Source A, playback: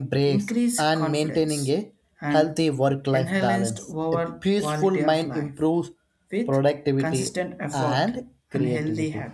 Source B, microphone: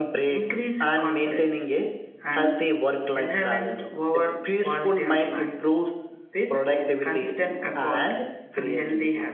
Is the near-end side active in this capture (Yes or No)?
No